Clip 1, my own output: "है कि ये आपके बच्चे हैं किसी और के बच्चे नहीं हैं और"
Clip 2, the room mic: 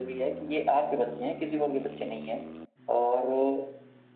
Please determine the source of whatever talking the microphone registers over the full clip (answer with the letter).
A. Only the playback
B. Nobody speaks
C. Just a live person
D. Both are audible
A